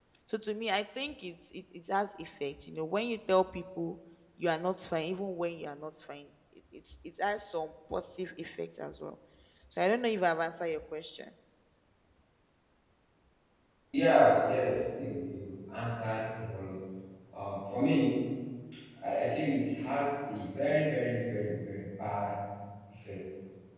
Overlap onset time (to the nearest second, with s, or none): none